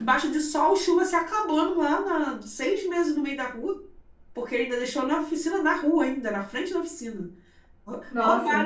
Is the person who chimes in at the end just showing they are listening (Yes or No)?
Yes